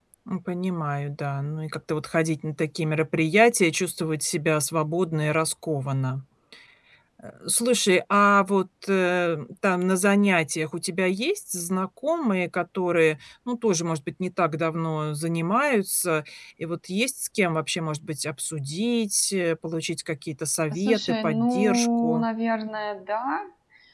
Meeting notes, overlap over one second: present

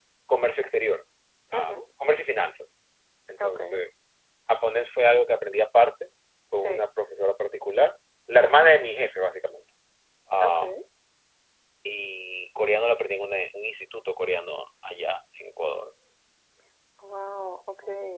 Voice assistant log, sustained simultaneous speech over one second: none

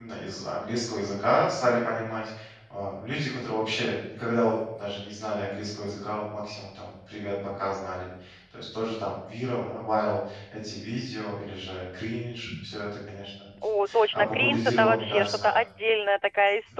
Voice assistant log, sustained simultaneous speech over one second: present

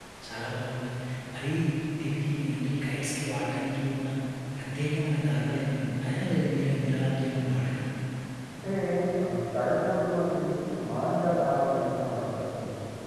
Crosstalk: none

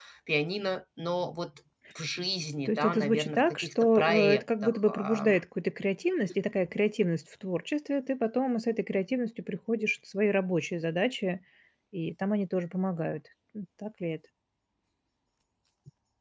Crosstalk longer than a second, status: present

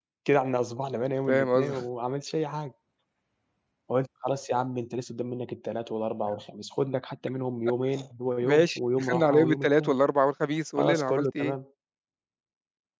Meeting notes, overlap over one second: present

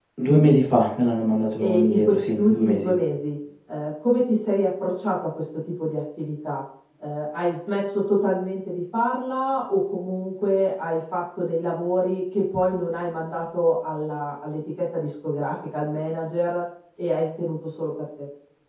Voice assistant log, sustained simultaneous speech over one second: present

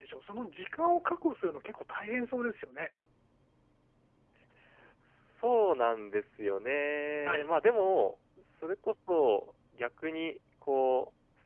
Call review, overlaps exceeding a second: none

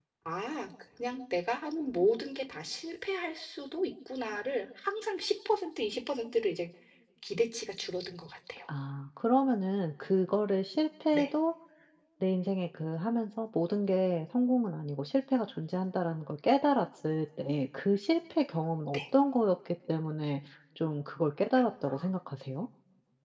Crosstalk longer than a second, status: none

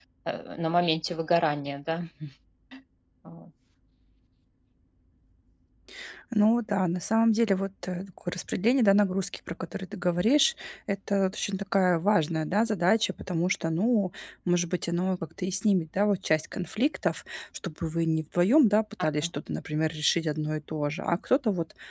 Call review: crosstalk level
none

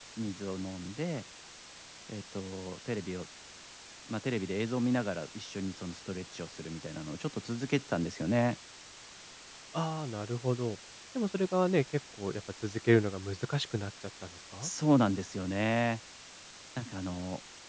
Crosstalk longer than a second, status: none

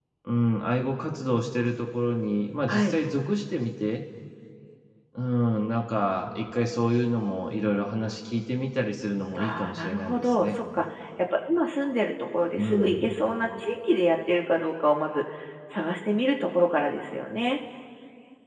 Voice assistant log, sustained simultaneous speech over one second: present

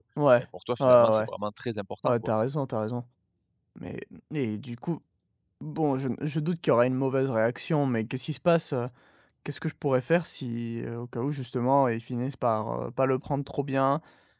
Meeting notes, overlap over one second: none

